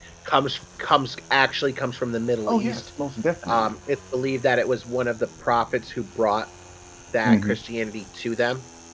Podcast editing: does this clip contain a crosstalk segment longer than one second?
No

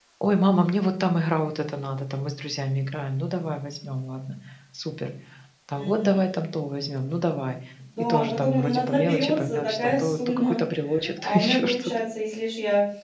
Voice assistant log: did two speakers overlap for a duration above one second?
Yes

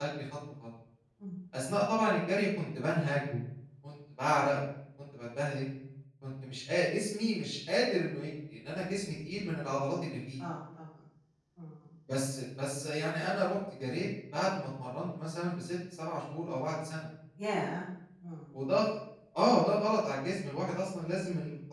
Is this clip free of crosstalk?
Yes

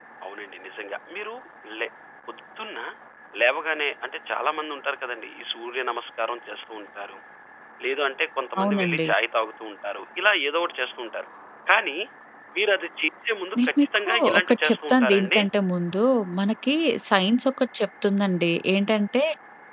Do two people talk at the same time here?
Yes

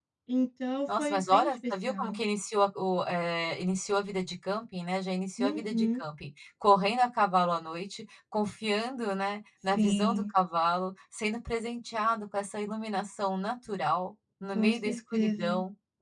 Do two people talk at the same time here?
Yes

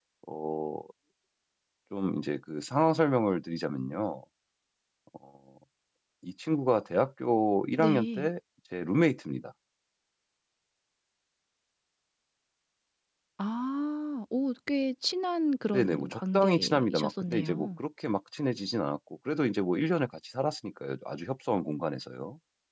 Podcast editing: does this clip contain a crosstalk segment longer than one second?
Yes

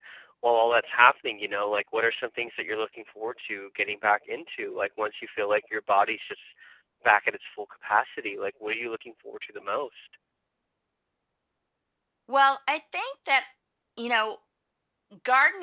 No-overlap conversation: Yes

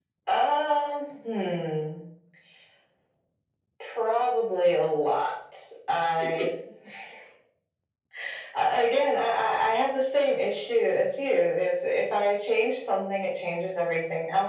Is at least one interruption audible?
No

